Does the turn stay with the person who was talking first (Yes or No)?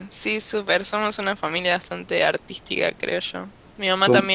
Yes